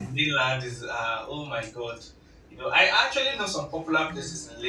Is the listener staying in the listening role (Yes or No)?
Yes